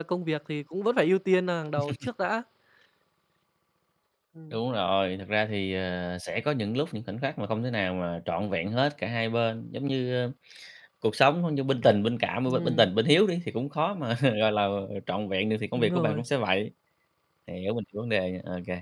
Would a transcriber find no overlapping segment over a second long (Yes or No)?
Yes